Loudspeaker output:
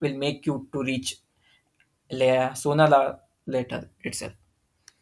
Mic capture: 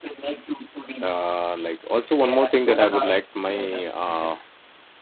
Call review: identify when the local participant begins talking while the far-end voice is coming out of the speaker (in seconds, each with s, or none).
1.0 s